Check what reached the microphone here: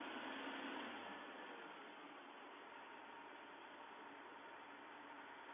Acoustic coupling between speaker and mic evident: No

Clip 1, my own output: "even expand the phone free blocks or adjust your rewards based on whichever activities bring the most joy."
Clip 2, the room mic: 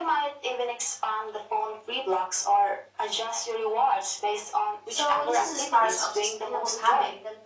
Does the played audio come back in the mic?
Yes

